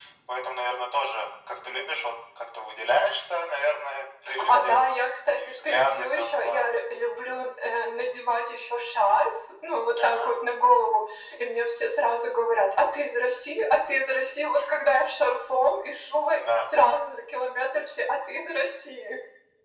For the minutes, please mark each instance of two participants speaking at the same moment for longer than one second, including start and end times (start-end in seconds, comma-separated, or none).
5.3-6.6